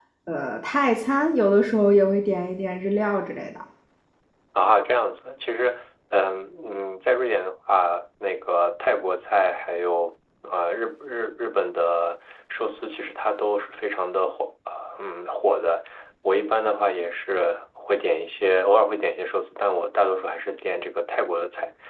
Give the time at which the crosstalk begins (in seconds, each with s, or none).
none